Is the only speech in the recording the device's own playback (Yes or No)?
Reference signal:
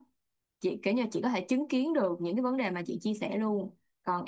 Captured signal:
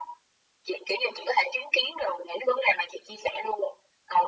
Yes